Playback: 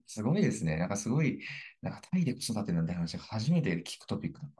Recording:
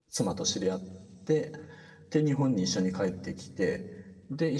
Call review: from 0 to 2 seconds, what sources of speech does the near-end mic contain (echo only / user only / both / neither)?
user only